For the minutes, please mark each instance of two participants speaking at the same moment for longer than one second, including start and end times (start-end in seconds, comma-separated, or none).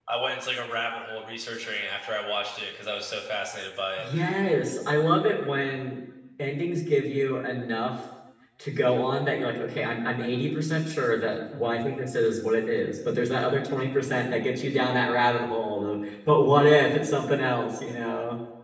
none